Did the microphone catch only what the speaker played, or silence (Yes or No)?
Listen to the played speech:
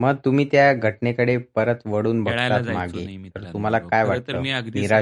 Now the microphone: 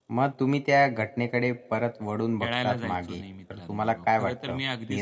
Yes